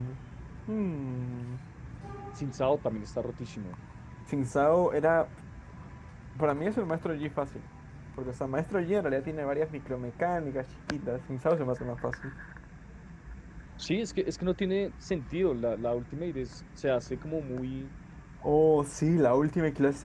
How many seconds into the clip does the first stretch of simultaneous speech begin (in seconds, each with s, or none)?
none